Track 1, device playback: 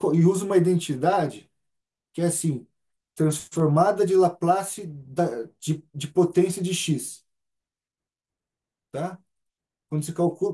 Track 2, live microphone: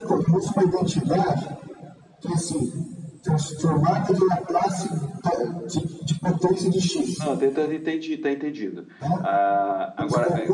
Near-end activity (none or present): present